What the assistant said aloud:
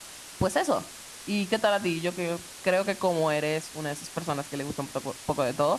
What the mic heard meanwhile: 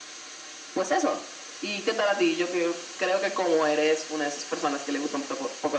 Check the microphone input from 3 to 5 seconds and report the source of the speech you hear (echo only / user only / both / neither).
echo only